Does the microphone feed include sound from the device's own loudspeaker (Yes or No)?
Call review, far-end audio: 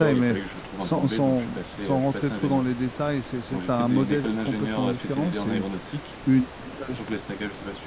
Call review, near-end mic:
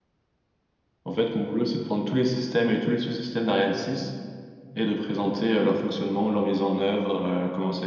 No